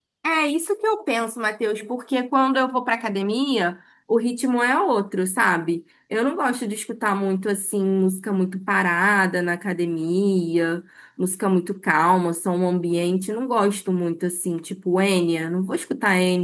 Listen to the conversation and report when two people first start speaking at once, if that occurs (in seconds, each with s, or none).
none